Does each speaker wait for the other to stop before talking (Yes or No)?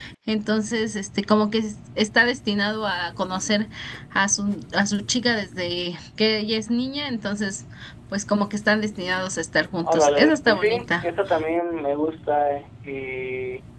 No